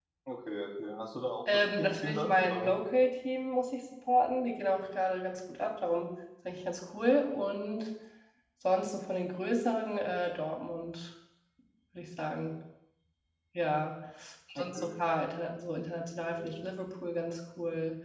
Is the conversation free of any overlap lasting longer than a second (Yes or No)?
No